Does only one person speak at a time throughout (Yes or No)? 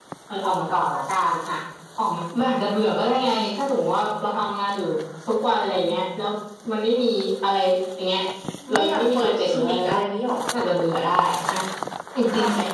No